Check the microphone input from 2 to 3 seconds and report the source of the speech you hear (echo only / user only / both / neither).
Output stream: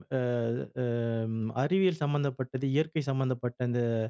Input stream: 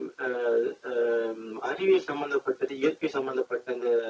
echo only